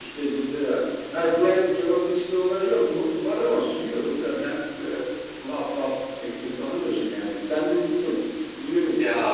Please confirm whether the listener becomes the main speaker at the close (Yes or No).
Yes